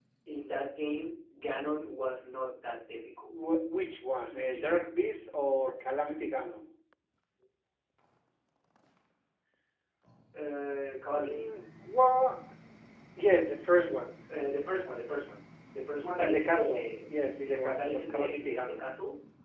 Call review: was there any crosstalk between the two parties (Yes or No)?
Yes